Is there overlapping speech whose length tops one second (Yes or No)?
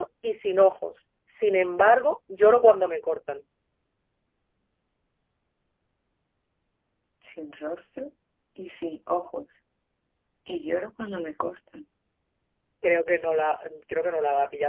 No